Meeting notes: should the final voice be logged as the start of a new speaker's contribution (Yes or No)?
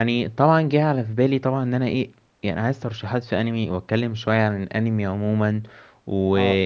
No